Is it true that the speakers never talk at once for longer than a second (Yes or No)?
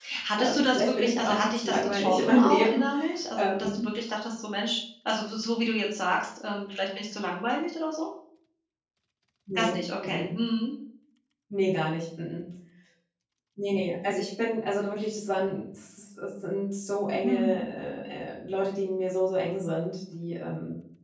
No